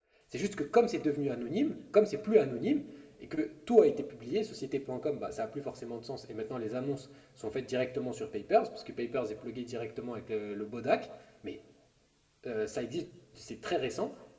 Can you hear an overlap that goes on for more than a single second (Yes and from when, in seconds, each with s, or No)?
No